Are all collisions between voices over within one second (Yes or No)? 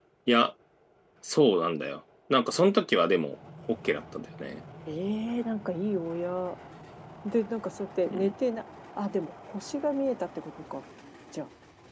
Yes